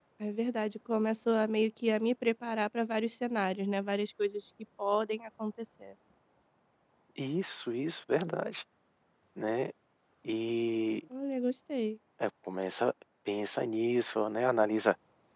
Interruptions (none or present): none